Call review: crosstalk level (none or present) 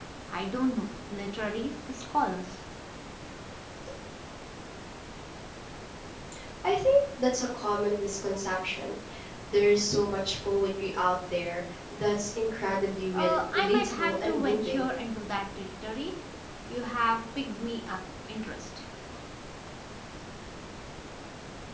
present